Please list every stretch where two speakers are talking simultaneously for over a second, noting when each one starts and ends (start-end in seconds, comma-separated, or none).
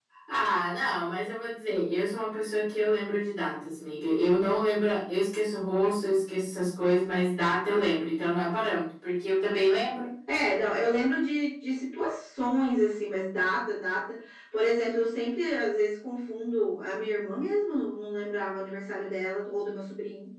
none